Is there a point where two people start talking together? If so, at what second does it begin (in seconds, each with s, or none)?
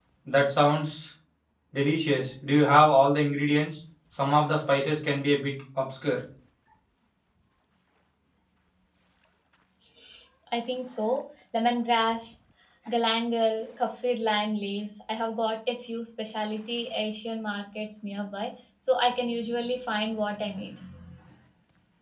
none